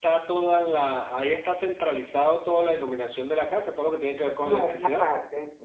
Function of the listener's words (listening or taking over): taking over